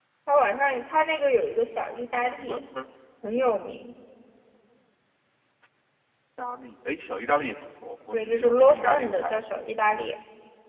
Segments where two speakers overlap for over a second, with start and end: 8.1-9.4

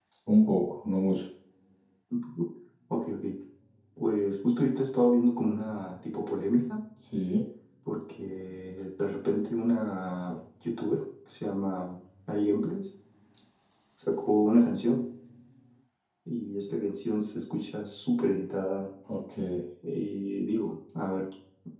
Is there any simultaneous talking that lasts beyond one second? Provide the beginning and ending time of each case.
none

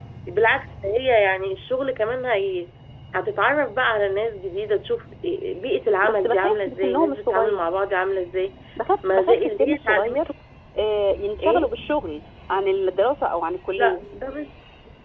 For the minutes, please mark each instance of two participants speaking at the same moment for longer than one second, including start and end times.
6.0-7.6, 9.0-10.3

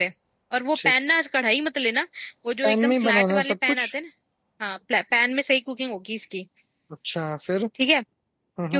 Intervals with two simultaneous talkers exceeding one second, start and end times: 2.6-3.9

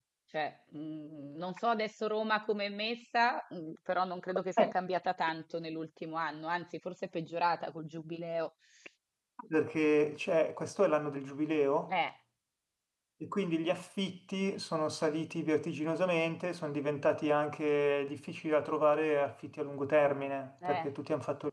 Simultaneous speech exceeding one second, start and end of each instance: none

